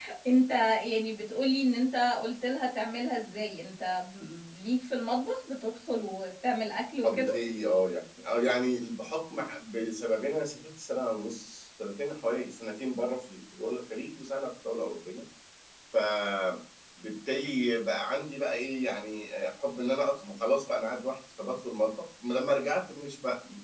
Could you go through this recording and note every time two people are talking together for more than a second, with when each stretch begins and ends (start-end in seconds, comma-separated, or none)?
none